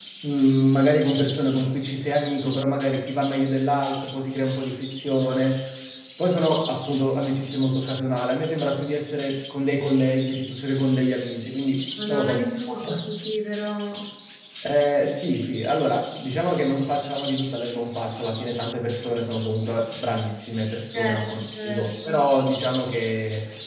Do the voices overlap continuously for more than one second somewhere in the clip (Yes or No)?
Yes